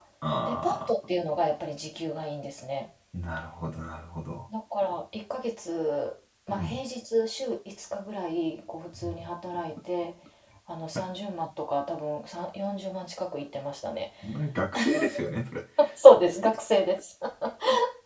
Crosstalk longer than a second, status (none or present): none